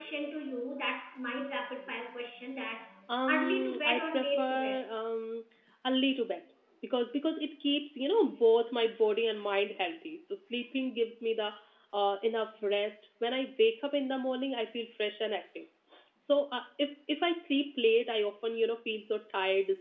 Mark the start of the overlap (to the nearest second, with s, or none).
3 s